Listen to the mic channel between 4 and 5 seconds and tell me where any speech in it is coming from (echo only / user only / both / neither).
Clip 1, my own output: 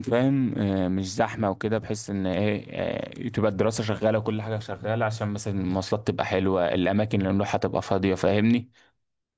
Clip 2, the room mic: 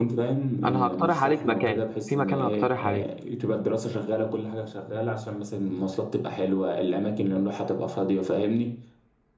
echo only